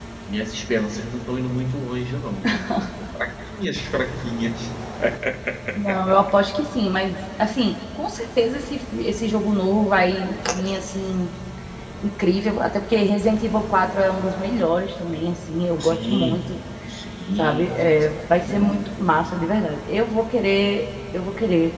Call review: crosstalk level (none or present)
present